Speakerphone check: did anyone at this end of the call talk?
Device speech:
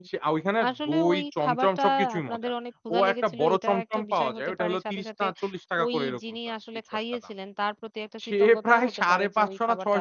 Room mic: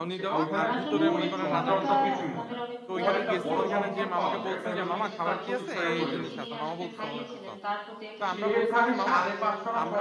Yes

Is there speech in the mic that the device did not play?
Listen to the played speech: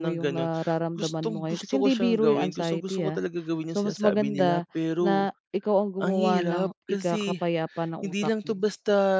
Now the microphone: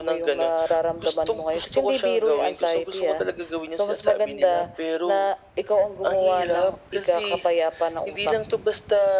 No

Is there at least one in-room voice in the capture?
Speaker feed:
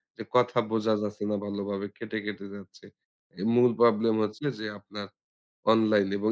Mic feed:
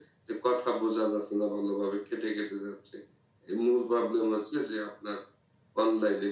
No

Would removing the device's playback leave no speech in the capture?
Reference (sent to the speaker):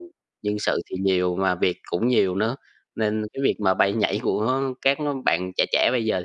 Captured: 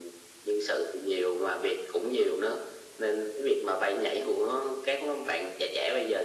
Yes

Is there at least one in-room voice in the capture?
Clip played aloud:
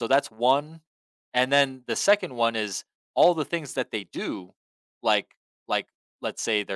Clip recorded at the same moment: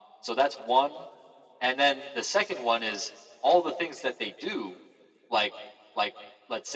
No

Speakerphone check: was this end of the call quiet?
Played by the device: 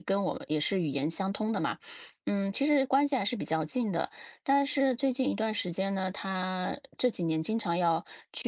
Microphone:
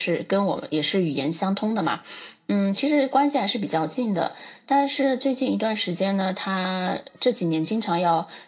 Yes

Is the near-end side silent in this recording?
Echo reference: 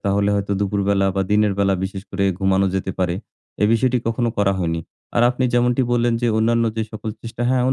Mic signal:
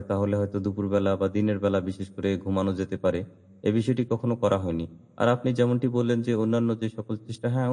Yes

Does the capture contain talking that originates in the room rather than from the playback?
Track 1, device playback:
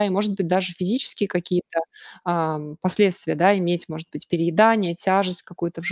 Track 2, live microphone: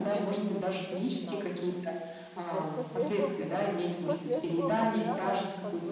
Yes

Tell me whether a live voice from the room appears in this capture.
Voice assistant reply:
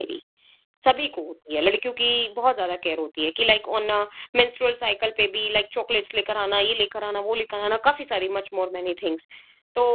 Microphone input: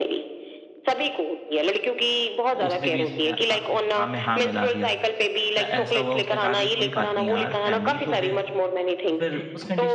Yes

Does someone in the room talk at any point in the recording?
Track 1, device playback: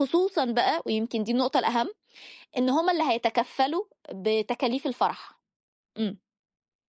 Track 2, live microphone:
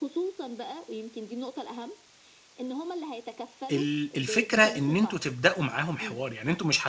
Yes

